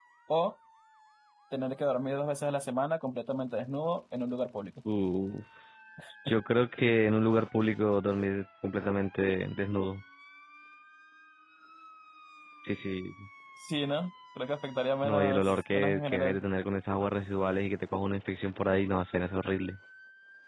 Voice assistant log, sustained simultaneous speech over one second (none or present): present